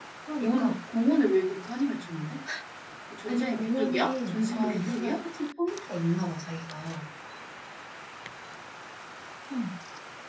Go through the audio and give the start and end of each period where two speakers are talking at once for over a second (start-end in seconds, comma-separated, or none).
3.3-5.2